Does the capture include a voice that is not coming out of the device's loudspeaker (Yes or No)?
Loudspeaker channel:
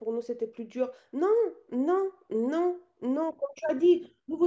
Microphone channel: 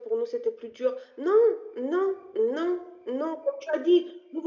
No